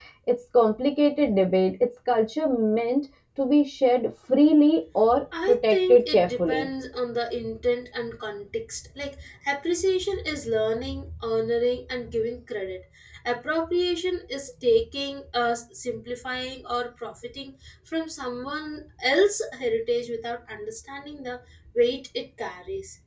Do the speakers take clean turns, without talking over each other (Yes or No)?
No